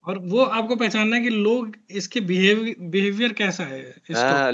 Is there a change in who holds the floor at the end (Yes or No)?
Yes